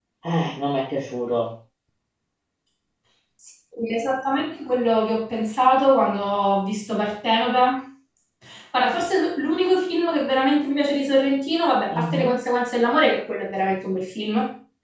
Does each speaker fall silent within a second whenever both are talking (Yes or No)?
Yes